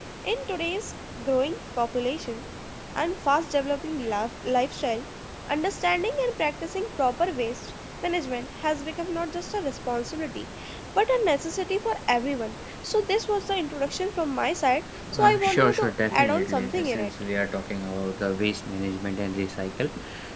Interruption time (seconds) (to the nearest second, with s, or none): 15 s